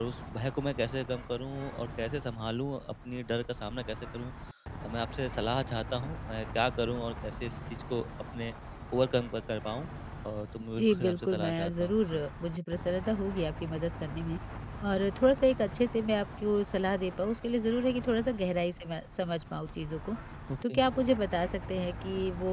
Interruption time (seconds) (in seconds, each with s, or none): 10.8 s